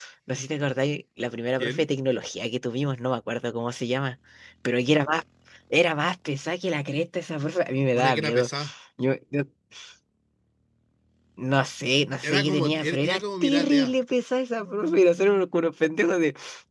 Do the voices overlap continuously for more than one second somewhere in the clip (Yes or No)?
Yes